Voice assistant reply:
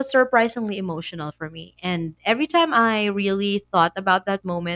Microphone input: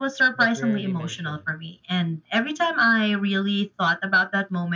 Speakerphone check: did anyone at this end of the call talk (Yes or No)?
Yes